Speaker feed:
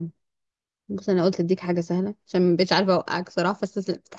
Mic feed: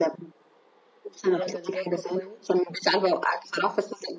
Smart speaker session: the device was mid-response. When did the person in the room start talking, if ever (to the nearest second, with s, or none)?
1 s